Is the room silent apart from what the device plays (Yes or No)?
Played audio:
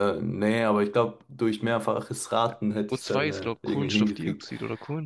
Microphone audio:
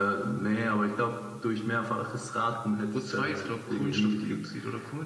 Yes